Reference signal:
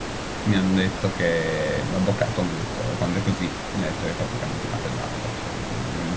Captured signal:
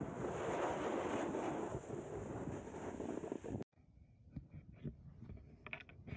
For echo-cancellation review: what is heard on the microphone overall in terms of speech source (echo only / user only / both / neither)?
neither